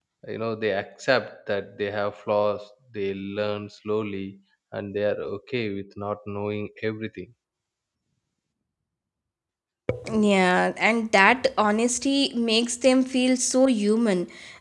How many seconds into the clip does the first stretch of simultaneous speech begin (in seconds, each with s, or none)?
none